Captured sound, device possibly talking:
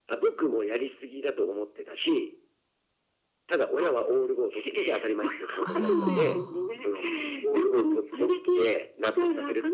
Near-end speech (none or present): present